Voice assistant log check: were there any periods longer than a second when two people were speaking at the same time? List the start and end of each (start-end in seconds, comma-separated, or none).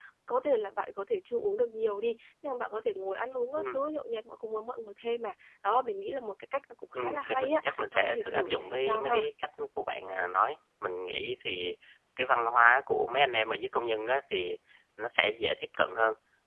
6.9-9.3